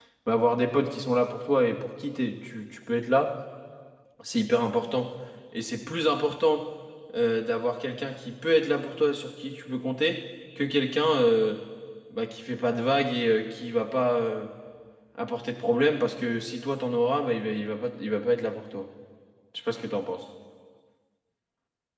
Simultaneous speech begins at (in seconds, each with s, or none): none